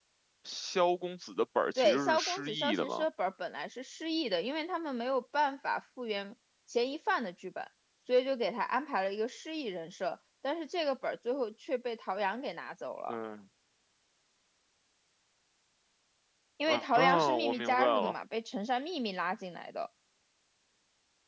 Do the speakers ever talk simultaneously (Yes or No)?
Yes